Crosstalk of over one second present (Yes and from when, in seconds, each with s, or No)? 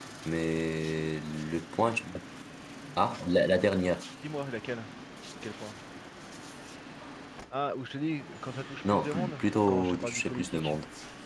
Yes, from 8.8 s